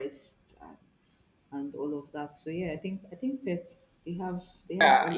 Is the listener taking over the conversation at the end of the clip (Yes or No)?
Yes